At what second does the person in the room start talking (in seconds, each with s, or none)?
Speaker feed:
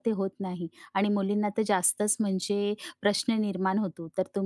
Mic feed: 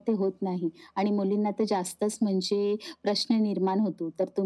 none